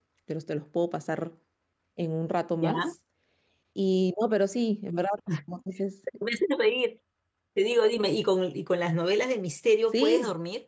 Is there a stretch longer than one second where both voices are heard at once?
No

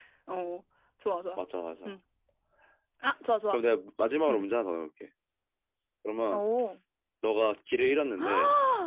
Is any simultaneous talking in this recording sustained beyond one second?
No

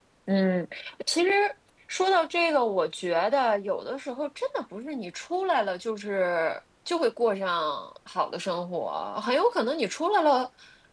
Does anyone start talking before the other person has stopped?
No

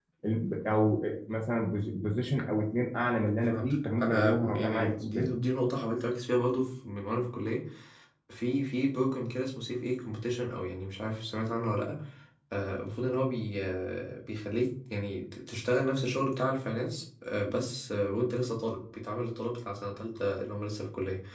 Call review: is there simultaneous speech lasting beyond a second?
Yes, from 3.4 s

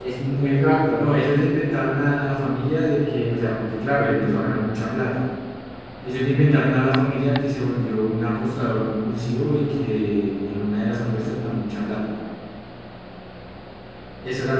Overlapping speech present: No

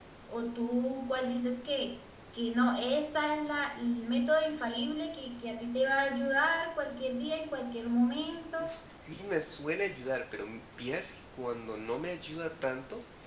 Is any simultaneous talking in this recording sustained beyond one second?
No

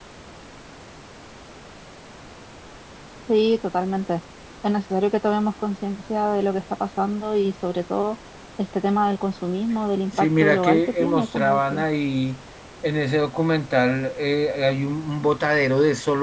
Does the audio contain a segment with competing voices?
Yes, from 10.1 s

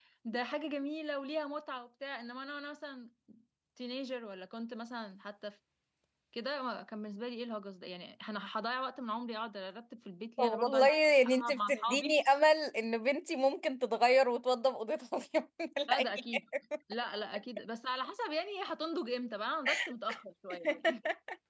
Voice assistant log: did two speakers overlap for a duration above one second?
Yes, from 10.4 s

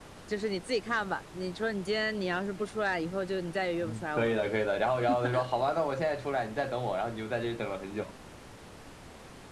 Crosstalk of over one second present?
No

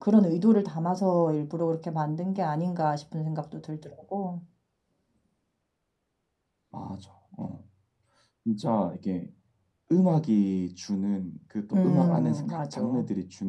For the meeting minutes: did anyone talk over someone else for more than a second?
Yes, from 11.7 s

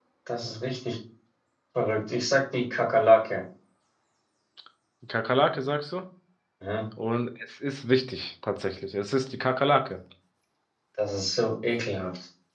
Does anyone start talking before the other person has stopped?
No

